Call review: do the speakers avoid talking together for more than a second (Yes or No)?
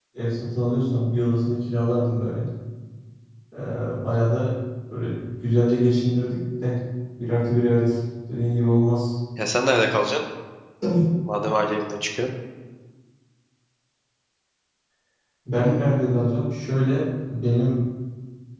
Yes